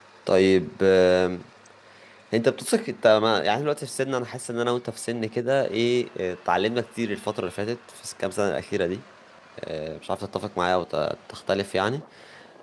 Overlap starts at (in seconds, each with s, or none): none